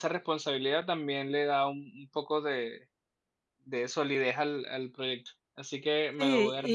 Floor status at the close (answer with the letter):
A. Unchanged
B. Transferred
B